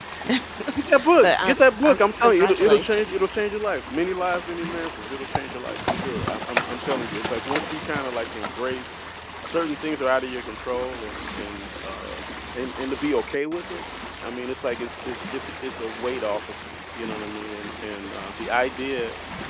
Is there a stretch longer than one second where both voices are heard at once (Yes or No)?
Yes